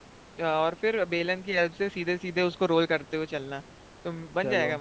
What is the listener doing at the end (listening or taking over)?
listening